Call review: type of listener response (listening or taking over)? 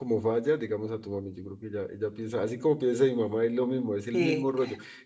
listening